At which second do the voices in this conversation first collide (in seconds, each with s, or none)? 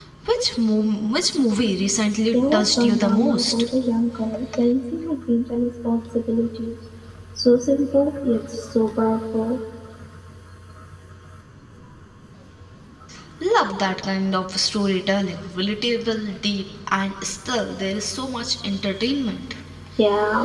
2.3 s